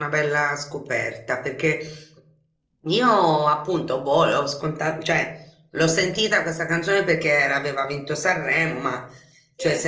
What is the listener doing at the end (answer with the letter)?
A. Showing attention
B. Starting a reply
A